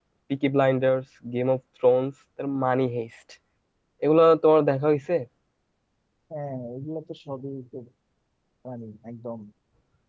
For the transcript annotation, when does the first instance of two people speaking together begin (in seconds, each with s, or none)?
none